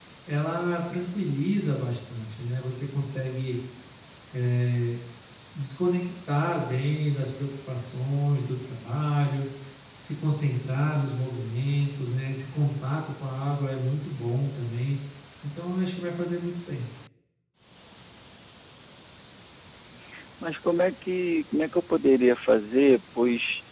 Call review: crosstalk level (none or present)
none